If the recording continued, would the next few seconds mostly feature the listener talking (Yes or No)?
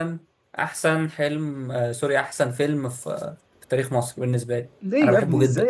Yes